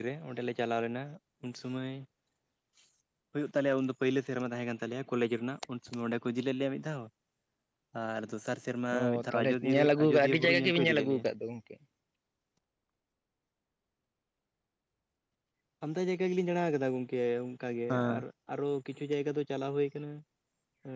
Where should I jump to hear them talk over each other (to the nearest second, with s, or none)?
9 s